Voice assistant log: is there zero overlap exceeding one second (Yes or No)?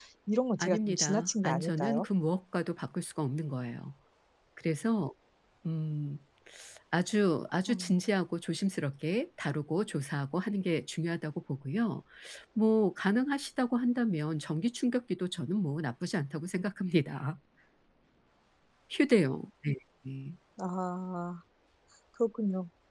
No